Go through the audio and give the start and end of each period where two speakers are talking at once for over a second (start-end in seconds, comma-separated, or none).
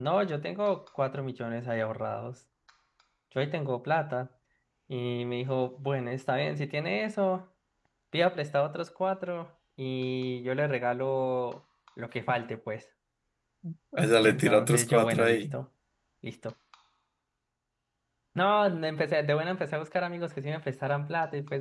14.2-15.6